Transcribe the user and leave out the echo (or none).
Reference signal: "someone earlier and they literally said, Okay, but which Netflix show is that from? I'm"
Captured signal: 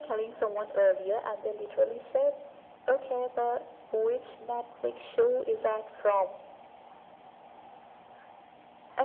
none